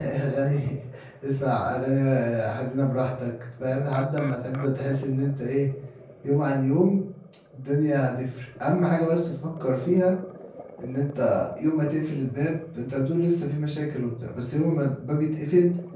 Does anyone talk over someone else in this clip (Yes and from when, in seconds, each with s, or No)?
No